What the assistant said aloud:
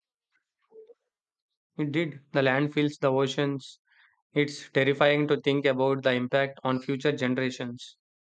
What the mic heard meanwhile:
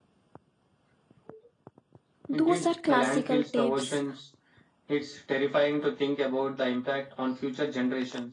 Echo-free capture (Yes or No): No